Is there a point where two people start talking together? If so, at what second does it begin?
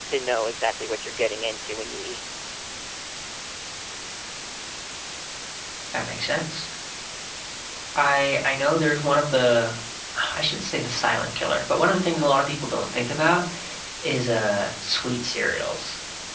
none

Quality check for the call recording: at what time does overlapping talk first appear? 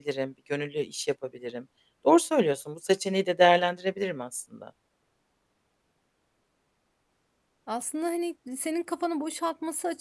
none

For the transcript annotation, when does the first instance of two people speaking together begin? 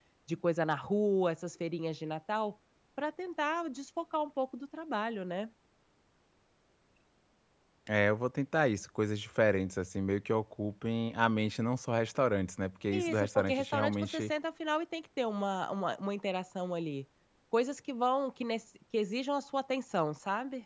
12.9 s

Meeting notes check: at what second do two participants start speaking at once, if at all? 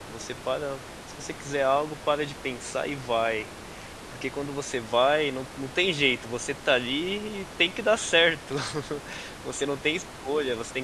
none

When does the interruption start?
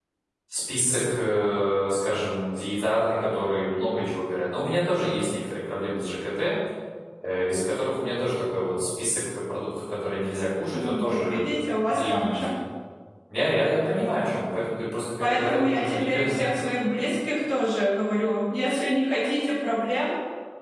10.7 s

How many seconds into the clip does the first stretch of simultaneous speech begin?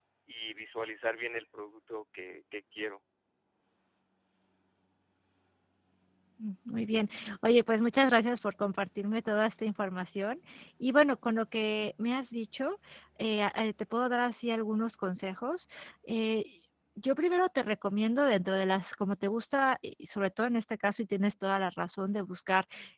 none

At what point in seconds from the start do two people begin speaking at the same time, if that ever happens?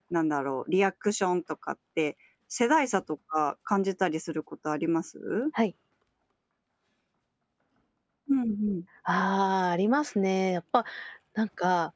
none

